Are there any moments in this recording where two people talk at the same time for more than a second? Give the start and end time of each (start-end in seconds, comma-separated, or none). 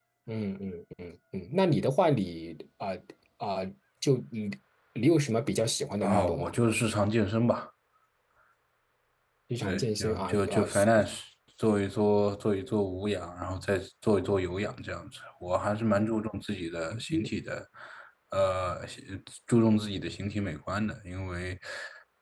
9.6-10.8